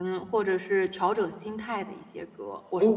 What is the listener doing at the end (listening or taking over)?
taking over